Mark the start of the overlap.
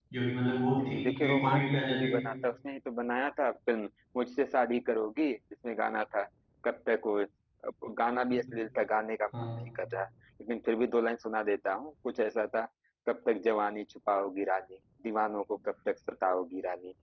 0.8 s

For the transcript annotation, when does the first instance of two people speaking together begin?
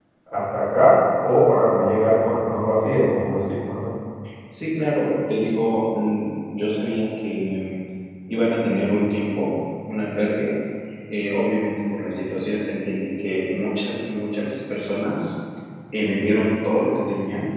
none

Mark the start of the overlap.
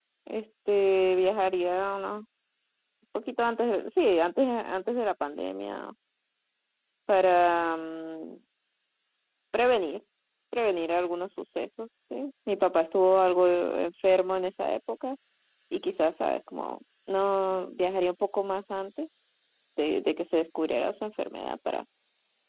none

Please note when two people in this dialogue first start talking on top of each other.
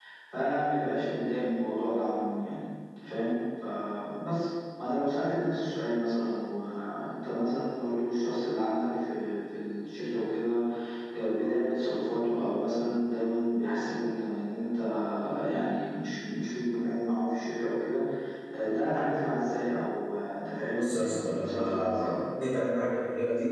20.8 s

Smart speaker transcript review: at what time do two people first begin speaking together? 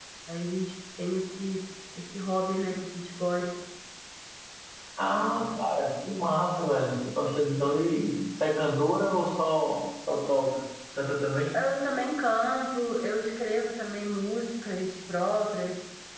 none

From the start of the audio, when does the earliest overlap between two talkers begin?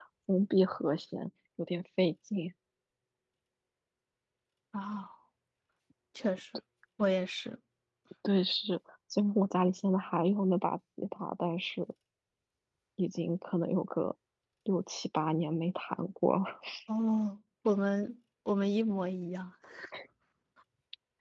none

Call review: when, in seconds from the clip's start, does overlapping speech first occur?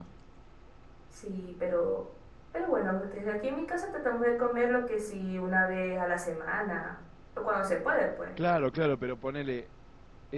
none

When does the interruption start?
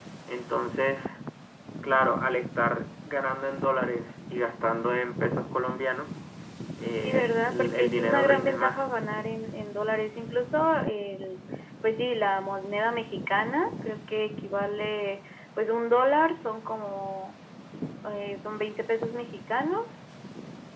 6.9 s

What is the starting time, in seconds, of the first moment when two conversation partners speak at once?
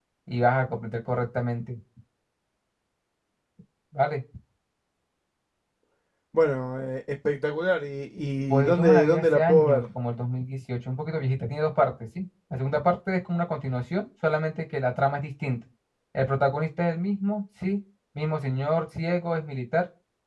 8.5 s

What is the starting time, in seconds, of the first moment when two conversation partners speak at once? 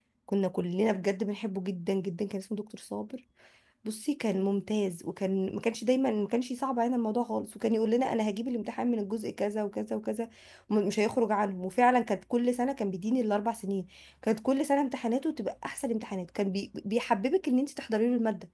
none

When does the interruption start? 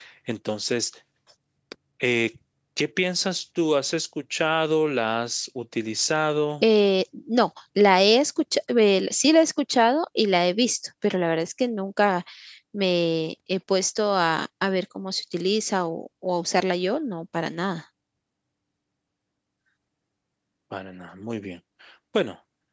none

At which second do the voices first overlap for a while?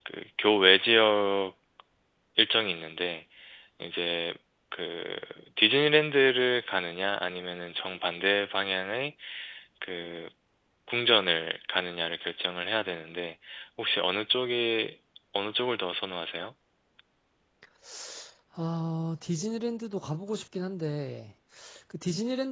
none

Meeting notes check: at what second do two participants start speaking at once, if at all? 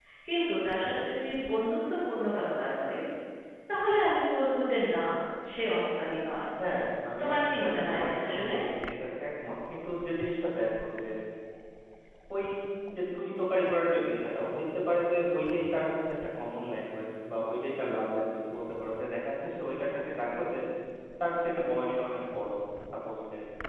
7.2 s

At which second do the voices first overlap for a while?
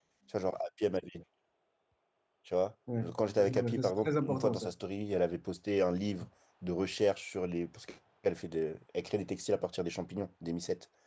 3.1 s

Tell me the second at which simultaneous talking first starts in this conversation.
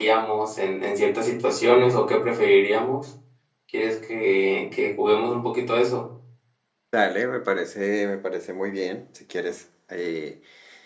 none

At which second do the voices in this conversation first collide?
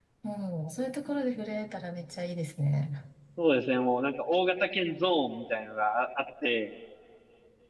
none

